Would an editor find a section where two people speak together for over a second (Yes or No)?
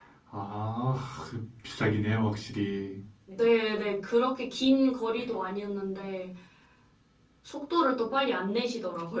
No